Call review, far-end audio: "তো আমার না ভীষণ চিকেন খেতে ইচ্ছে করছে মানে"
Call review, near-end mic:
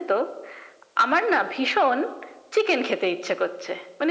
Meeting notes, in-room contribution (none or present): none